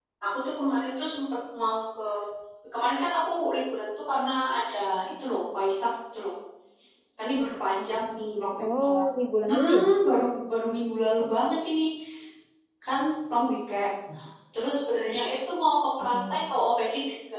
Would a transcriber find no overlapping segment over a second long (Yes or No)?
Yes